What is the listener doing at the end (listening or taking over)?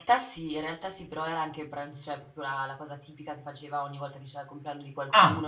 listening